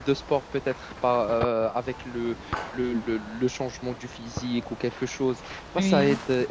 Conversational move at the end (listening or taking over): listening